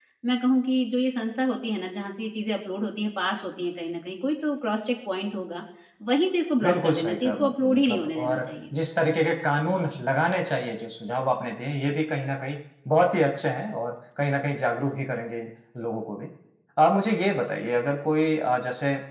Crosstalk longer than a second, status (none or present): present